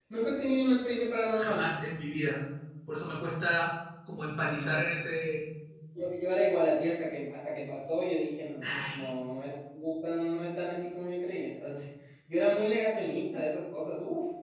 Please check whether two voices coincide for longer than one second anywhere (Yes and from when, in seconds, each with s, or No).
No